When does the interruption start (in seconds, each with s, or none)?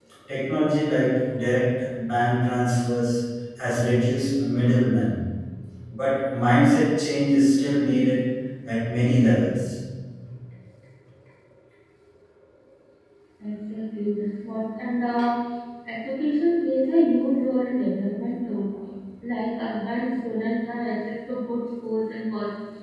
none